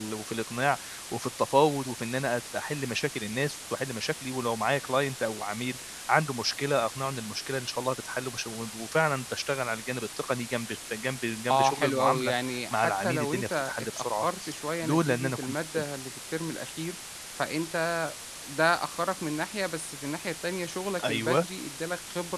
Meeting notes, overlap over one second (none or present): present